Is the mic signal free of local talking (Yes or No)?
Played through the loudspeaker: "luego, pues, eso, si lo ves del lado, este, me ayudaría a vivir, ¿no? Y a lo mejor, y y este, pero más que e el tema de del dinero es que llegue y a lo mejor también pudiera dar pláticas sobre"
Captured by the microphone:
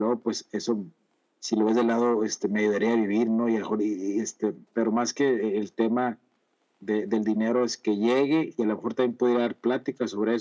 Yes